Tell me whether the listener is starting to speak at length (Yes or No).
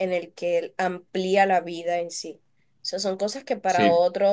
No